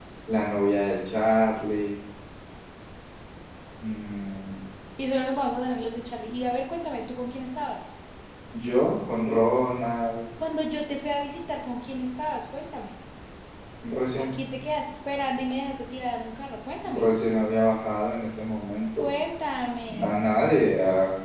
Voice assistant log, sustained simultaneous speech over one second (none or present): none